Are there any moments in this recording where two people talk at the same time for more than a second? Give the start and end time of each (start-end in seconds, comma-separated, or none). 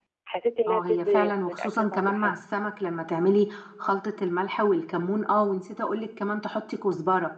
0.7-2.3